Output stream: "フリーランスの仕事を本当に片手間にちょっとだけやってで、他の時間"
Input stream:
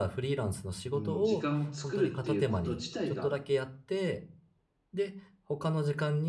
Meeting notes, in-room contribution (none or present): present